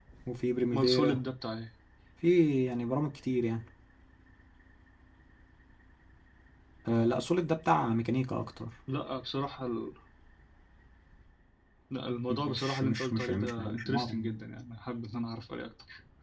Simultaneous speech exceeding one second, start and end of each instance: 12.3-14.4

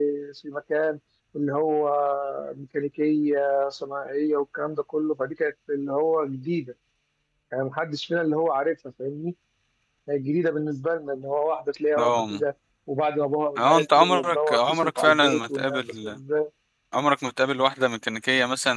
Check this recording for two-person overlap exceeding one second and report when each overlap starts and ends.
13.6-16.2

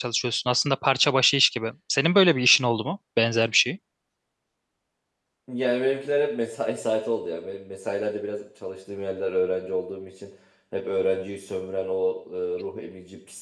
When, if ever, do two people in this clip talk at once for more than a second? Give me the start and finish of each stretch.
none

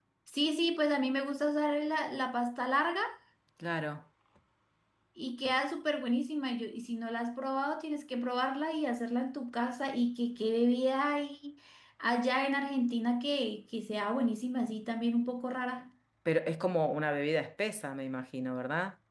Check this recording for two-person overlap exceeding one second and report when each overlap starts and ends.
none

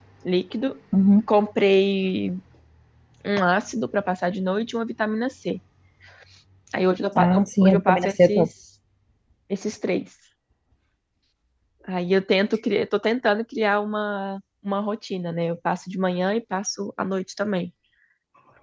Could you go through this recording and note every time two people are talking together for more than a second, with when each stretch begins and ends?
7.2-8.5

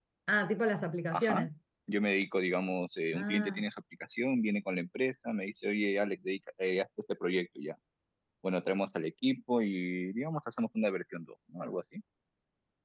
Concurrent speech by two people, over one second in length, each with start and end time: none

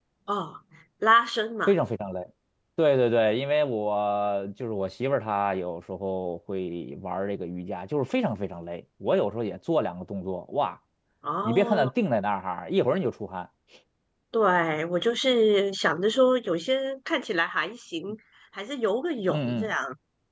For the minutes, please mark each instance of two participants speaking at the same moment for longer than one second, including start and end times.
none

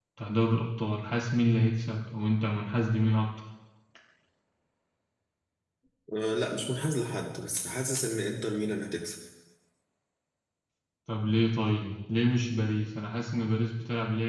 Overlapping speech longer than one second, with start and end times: none

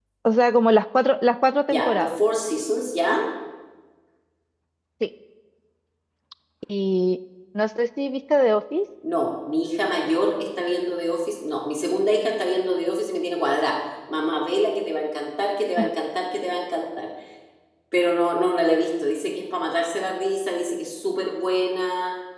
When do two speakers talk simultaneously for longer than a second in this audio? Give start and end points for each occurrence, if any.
none

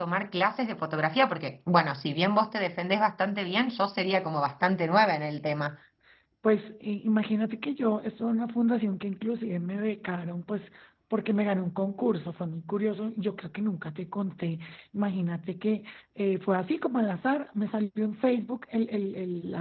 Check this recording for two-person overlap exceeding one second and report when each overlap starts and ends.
none

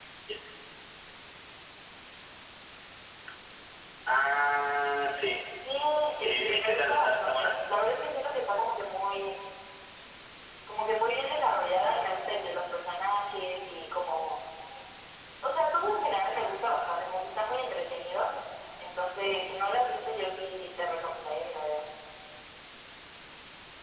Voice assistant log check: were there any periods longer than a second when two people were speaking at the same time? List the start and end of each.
6.2-7.6

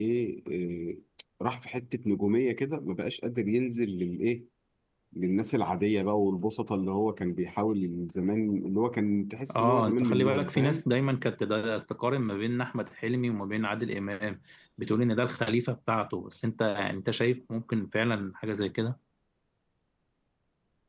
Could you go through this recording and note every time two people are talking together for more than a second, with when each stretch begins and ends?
9.6-10.8

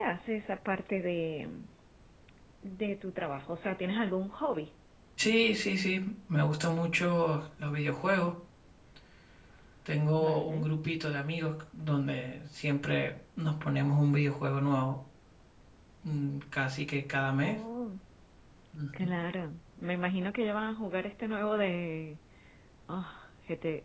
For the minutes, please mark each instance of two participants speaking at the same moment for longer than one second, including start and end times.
none

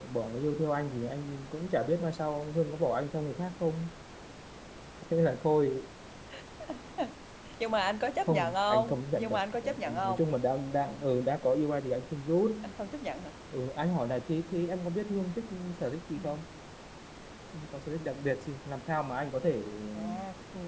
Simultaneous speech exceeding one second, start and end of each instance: 8.2-10.3

